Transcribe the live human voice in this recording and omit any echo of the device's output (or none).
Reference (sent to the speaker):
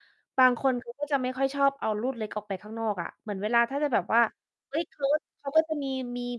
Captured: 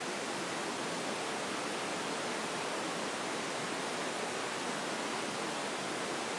none